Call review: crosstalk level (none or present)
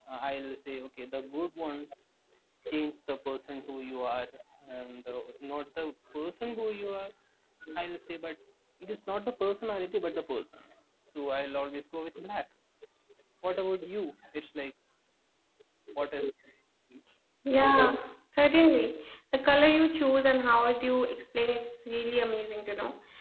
none